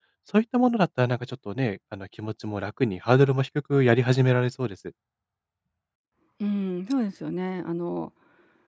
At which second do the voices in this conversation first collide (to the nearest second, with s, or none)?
none